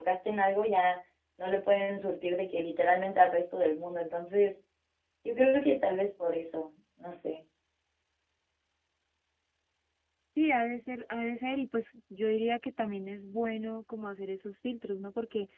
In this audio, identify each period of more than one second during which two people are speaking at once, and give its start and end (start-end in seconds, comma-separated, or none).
none